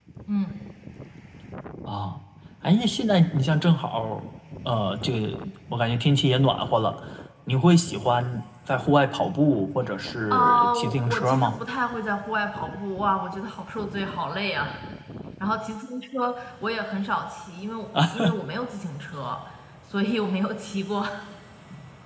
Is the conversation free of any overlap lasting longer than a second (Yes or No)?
No